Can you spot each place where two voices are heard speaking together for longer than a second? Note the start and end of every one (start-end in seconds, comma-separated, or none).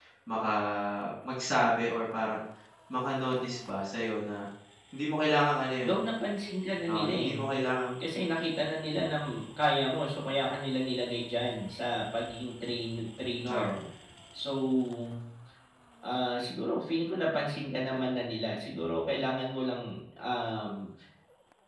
none